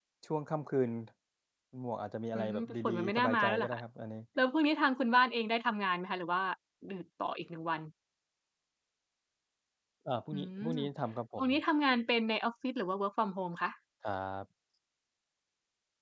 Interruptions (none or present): present